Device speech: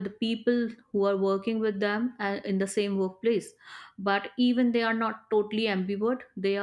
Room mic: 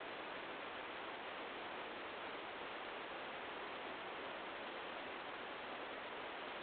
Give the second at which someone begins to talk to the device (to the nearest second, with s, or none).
none